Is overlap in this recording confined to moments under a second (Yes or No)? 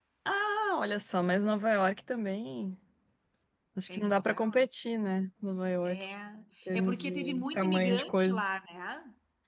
No